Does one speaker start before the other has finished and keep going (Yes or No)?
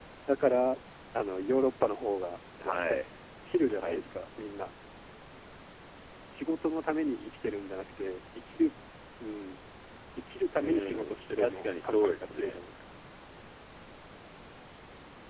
Yes